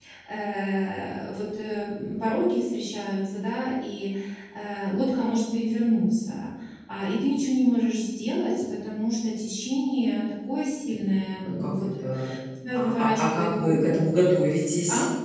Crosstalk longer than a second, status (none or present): present